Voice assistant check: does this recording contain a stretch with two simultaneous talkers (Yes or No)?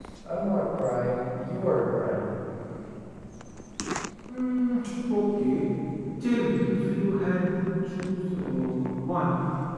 No